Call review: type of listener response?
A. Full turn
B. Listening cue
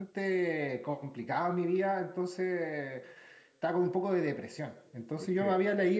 B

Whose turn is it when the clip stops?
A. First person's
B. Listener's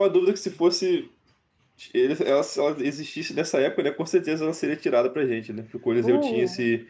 A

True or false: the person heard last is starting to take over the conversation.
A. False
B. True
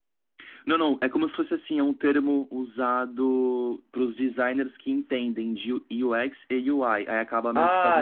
B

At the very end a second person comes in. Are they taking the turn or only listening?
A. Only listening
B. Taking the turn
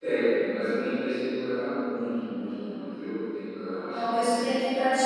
B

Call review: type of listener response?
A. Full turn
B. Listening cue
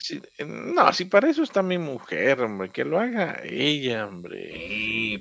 A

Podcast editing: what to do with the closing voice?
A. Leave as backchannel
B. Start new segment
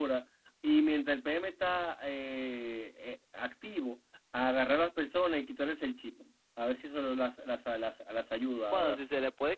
B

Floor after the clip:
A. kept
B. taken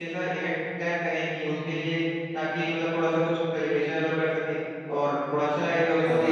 A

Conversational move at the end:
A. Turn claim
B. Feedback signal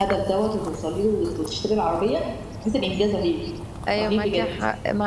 A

